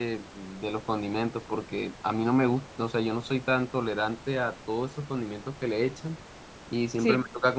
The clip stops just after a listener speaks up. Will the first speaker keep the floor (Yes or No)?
Yes